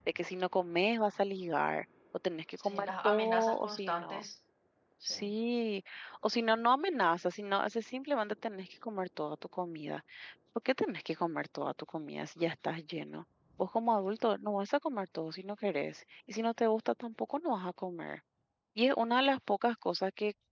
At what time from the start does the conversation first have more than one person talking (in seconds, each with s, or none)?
2.6 s